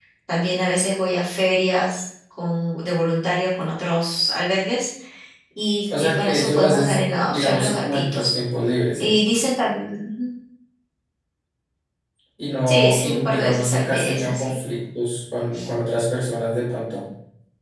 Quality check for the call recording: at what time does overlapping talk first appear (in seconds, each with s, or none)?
5.9 s